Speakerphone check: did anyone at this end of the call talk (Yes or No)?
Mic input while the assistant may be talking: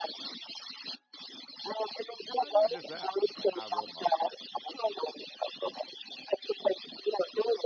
Yes